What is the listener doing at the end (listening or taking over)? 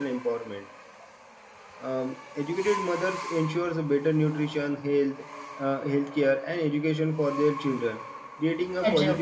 listening